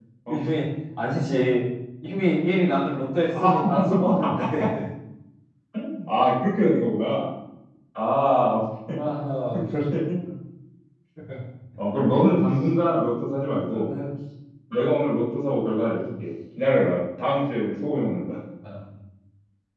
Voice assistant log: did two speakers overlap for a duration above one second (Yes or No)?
No